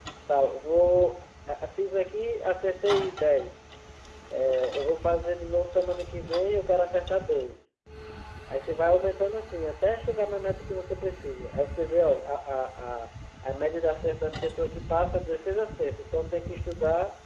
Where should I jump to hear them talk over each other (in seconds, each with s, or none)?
none